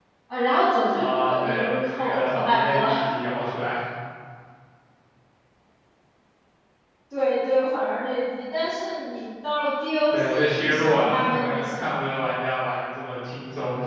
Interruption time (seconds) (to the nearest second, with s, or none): 1 s